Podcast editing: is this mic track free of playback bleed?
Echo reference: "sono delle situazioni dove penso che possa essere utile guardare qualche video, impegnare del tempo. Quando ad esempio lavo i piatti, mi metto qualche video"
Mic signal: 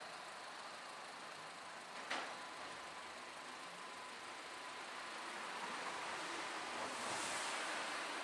Yes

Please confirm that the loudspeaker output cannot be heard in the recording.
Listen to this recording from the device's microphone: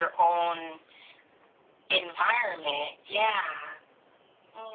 No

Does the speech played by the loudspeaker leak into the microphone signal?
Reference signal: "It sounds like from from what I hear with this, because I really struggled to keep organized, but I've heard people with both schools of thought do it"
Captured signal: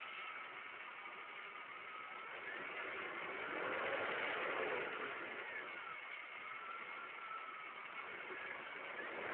No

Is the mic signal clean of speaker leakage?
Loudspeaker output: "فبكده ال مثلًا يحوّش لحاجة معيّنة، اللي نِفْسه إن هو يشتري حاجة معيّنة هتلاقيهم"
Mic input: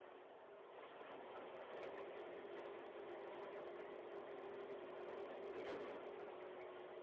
Yes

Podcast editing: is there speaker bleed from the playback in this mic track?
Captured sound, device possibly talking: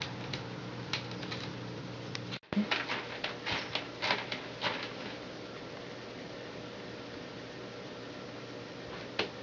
No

